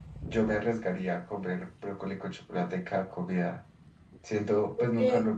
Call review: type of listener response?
listening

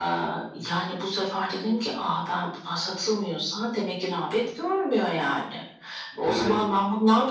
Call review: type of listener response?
listening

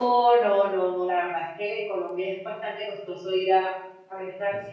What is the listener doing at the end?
listening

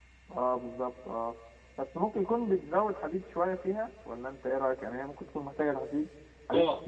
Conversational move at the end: taking over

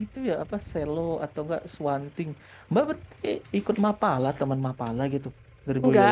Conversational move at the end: taking over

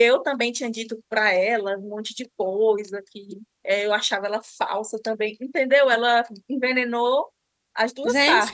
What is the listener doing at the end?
taking over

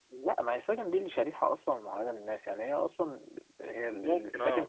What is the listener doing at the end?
listening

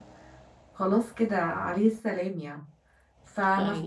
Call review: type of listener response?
listening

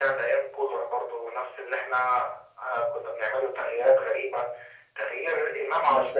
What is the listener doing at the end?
listening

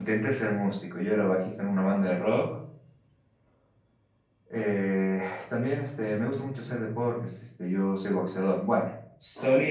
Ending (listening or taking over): listening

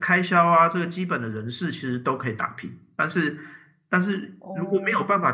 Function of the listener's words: listening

